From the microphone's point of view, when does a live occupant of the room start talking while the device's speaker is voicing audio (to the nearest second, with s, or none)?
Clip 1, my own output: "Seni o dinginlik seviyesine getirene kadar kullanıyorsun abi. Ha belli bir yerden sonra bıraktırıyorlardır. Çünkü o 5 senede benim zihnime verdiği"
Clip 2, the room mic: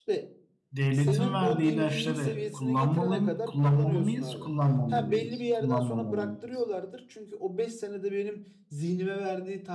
1 s